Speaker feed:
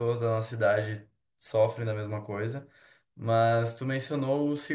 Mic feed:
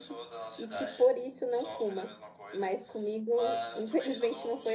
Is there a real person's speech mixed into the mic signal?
Yes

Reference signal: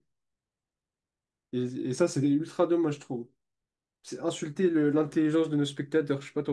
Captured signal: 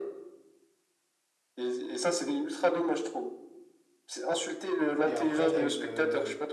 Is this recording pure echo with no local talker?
No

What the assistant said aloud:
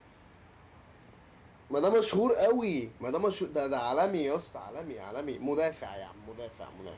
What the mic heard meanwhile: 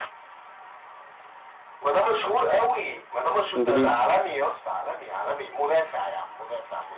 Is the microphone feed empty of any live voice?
No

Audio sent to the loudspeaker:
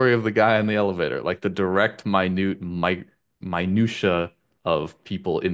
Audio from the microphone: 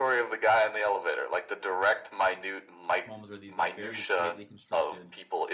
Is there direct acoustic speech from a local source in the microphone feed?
Yes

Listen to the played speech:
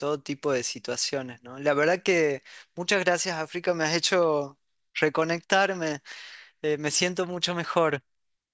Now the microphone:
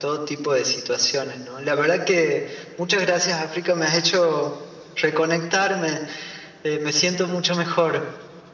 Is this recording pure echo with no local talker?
Yes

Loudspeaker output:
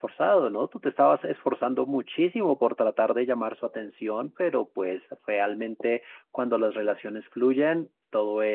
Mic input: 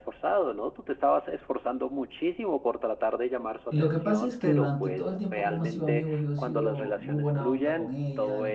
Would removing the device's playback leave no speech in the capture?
No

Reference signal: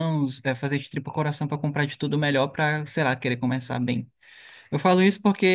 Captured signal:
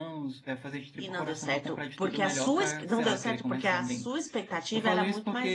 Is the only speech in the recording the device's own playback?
No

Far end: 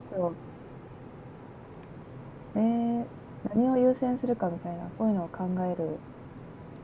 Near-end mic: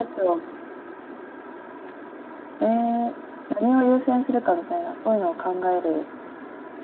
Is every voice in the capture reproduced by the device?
Yes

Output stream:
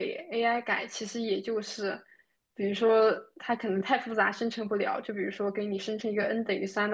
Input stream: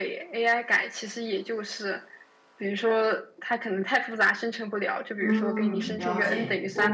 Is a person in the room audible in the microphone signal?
Yes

